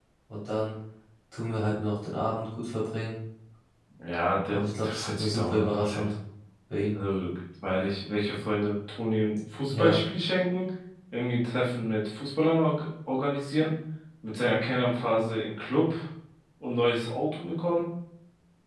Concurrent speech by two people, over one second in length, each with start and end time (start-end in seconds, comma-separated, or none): 4.5-6.1